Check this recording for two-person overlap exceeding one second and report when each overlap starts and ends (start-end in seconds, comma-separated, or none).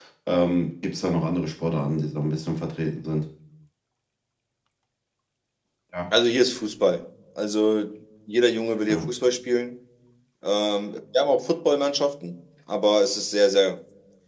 none